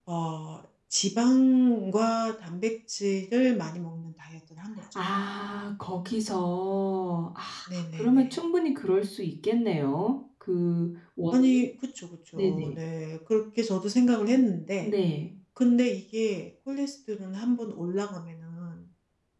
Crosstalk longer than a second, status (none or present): none